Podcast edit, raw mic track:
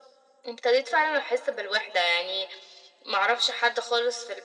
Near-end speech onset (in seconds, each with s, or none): none